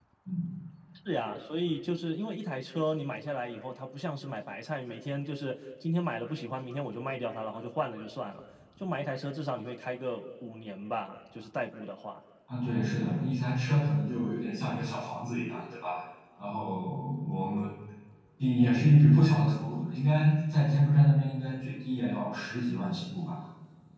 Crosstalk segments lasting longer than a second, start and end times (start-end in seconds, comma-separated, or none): none